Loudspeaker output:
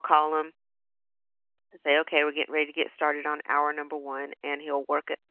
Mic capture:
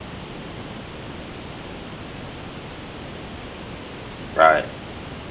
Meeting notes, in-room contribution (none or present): present